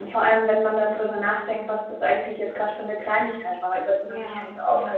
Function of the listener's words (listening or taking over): listening